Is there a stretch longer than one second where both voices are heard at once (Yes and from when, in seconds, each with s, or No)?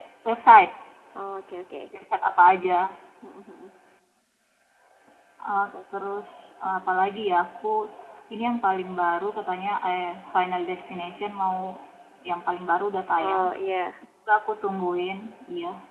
No